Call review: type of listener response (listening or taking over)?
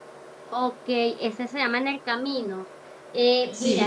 listening